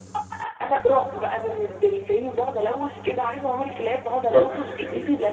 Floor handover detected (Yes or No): No